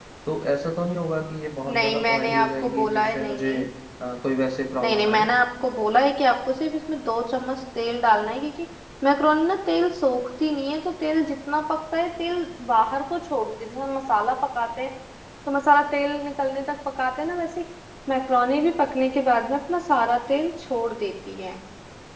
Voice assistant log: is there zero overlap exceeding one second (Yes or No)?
No